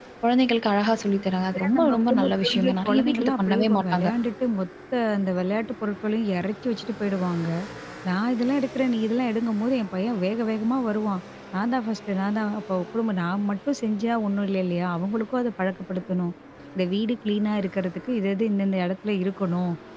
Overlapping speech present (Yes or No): Yes